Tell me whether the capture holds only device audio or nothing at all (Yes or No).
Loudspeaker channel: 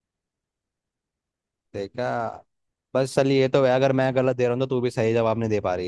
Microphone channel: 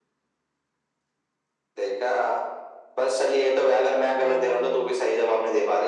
No